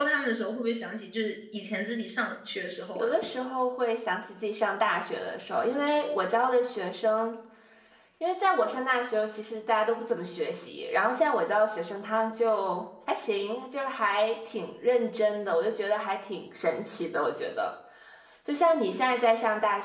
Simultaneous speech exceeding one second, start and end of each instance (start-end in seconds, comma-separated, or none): none